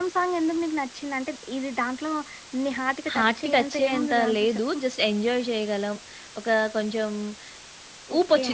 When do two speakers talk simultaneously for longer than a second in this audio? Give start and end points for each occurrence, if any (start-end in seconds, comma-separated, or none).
3.1-4.8